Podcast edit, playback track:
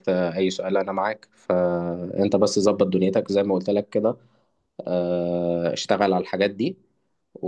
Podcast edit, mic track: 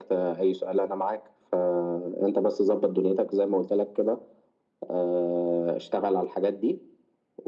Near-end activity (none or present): none